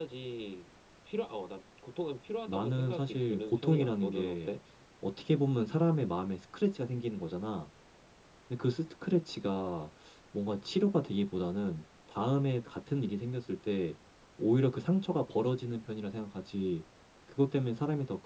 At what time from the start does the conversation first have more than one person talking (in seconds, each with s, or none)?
2.5 s